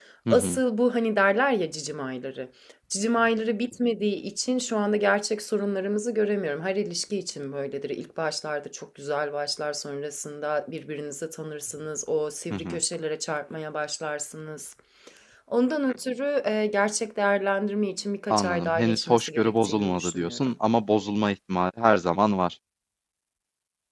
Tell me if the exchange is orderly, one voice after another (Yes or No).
No